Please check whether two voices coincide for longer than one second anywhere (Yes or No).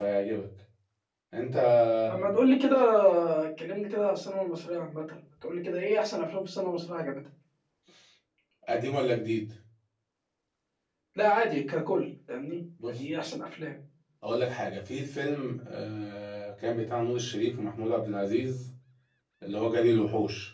No